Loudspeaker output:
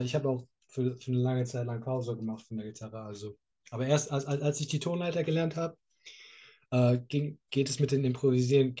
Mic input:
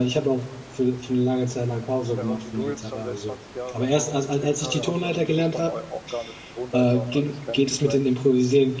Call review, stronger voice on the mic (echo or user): echo